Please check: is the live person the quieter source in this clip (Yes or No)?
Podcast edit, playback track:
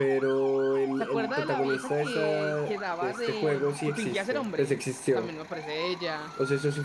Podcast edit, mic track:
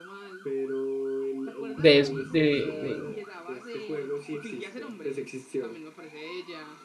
No